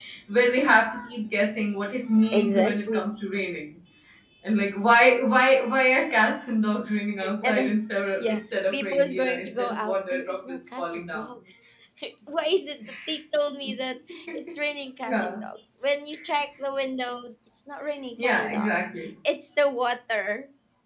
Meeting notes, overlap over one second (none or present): present